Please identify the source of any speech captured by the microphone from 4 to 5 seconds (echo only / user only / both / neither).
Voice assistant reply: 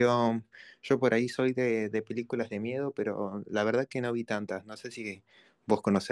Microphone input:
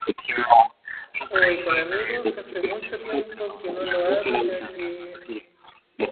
both